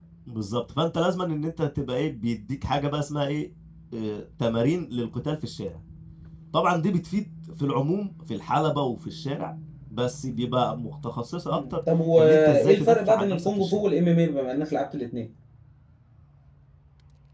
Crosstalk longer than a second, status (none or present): present